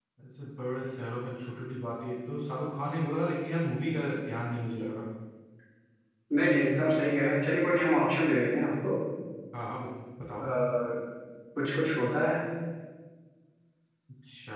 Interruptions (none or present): none